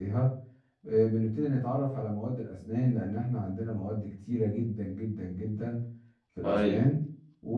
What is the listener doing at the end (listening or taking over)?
listening